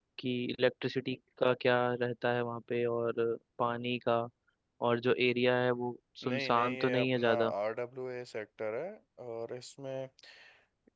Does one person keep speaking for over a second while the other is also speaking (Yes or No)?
Yes